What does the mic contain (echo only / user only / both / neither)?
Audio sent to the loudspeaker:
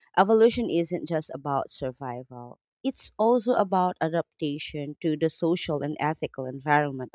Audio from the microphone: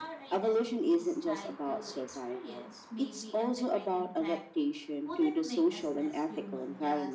both